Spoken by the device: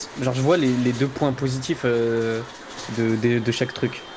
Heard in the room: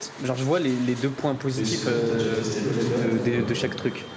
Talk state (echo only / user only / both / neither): both